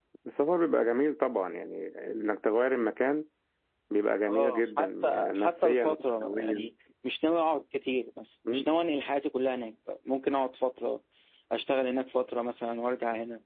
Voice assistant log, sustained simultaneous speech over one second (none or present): present